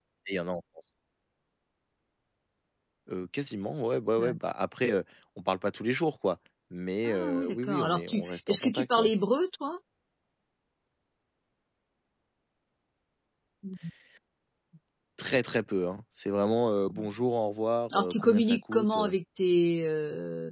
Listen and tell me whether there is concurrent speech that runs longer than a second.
Yes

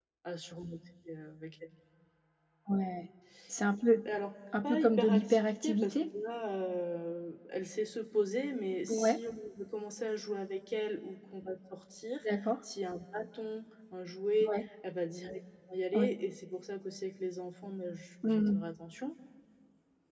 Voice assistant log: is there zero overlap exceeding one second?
No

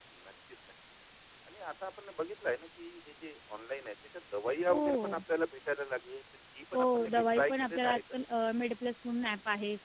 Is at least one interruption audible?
Yes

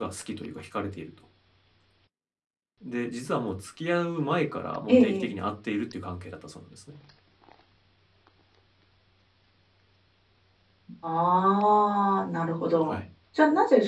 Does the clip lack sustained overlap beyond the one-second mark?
Yes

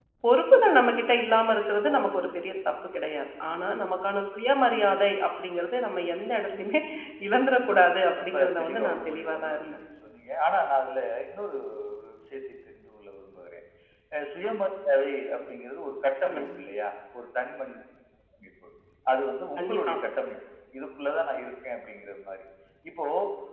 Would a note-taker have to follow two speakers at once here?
Yes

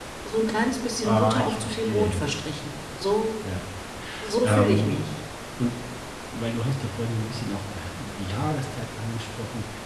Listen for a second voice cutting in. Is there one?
Yes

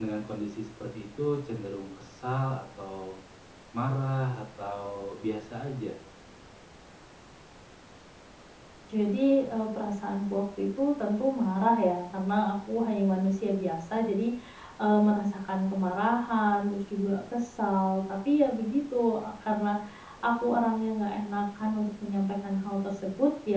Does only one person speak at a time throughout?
Yes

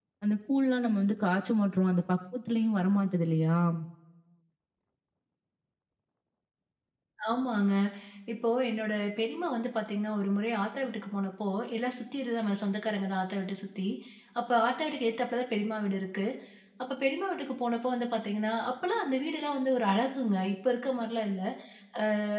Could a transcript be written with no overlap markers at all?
Yes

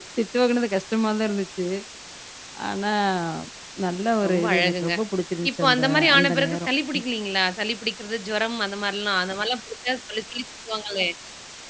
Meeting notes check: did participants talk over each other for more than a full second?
Yes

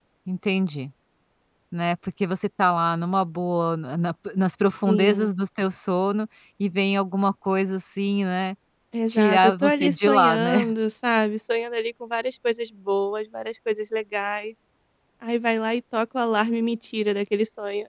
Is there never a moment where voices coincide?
No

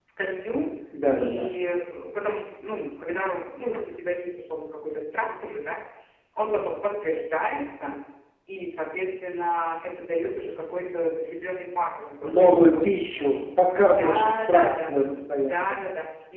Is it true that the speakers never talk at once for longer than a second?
No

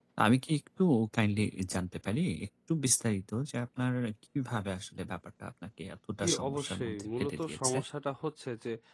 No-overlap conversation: No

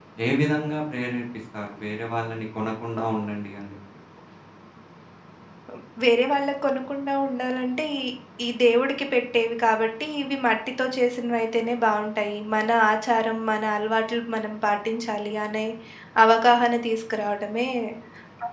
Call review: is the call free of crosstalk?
Yes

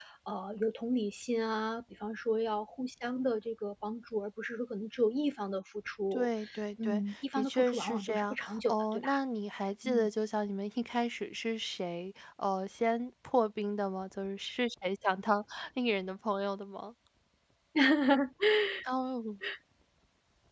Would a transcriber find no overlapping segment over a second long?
No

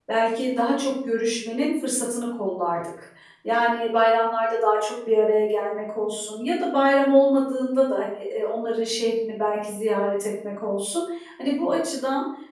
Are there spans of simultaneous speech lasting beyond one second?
No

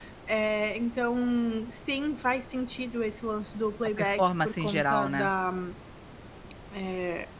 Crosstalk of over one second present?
Yes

